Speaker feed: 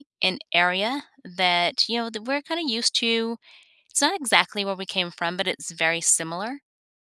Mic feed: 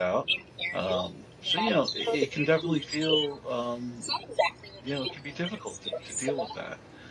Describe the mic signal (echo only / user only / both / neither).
both